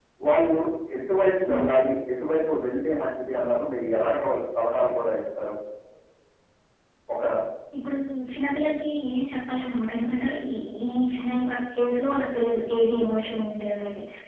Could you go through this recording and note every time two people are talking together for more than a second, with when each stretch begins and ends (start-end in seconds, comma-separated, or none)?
none